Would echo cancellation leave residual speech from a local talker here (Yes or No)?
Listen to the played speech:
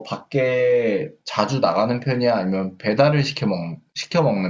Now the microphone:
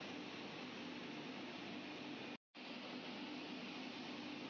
No